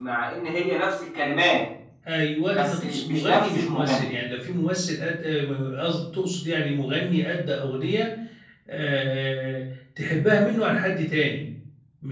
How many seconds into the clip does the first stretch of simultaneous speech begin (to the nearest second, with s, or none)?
3 s